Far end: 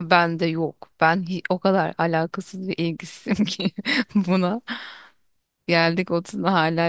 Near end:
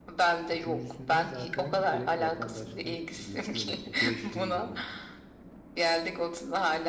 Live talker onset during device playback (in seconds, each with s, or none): 0.5 s